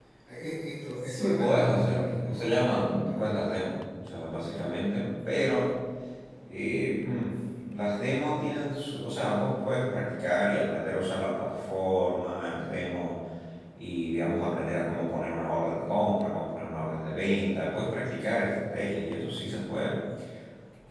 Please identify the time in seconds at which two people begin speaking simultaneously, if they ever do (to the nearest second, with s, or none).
1 s